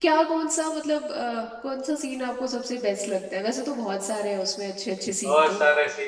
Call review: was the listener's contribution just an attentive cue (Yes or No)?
No